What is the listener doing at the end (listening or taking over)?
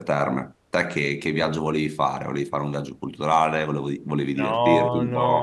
taking over